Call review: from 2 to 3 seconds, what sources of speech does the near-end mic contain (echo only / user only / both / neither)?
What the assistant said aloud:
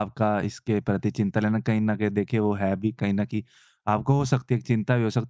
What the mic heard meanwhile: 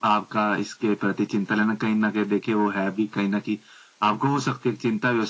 echo only